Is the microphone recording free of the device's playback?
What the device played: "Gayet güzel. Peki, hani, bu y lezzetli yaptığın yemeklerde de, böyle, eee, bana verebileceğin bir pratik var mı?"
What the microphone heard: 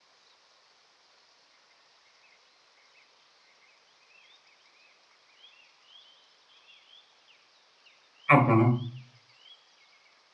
Yes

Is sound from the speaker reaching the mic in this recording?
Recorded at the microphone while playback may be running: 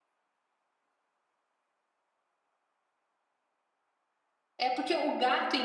No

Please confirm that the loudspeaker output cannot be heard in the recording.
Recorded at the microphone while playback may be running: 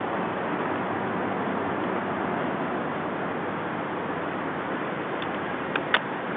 Yes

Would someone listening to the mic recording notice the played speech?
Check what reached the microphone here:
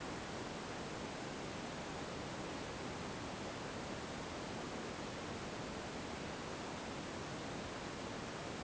No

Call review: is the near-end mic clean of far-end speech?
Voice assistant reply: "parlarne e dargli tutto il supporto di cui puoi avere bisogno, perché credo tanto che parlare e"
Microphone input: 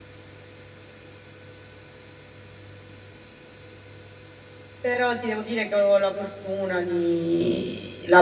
Yes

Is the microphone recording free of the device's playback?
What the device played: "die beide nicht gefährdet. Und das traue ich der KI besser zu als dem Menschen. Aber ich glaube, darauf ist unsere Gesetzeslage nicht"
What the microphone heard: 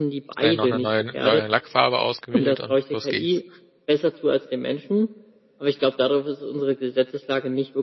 No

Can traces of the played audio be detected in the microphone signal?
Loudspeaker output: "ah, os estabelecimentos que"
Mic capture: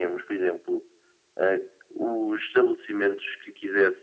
Yes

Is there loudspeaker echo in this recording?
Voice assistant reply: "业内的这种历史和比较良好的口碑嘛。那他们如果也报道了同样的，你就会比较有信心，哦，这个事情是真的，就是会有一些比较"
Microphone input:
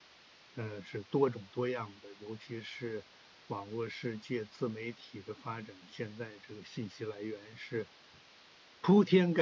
No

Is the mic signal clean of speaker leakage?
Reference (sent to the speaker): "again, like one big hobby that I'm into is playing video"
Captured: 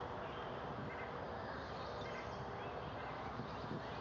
Yes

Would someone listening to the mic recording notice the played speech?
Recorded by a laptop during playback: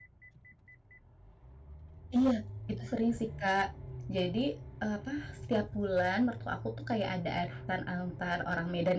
No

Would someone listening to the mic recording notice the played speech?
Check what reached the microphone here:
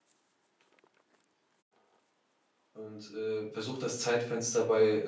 No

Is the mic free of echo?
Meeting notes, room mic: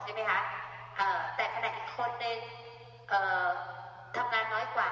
No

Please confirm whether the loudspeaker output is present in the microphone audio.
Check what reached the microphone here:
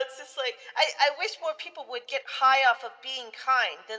Yes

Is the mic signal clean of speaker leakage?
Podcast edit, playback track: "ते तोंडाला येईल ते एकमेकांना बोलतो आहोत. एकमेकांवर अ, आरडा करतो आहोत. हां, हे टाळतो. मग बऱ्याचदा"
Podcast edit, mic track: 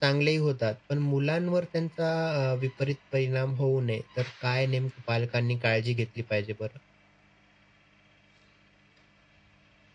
Yes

